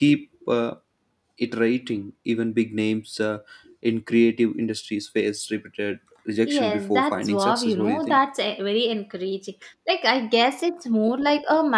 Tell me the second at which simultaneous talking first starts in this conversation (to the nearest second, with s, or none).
6 s